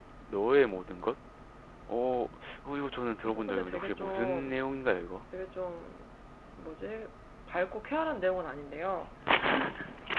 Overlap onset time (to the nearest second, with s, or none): 3 s